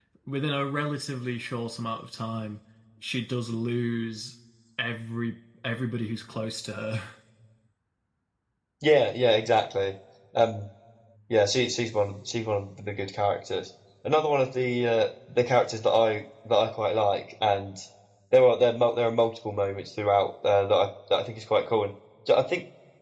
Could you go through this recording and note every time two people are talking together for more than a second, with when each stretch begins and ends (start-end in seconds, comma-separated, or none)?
none